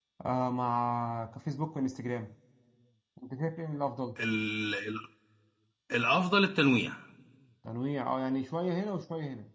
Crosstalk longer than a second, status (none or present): none